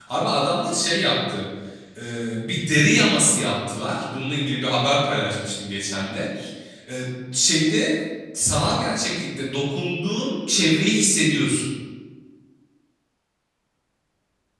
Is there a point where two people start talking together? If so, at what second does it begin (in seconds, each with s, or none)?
none